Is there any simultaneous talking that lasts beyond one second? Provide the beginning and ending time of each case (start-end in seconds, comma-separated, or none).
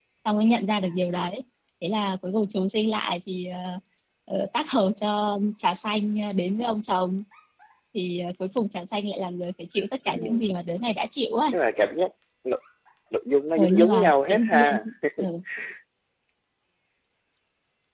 13.6-14.8